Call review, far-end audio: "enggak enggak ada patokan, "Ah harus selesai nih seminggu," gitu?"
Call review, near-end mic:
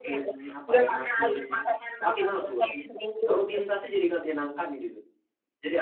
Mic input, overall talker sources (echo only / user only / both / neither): both